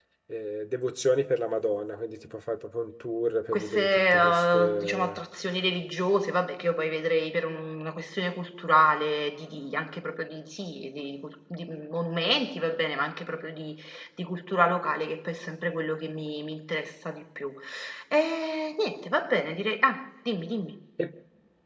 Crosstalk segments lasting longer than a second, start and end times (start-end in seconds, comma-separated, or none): 3.5-5.2